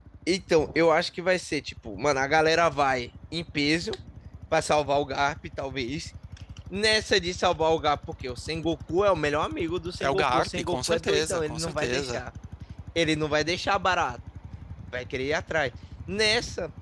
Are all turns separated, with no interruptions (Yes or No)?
No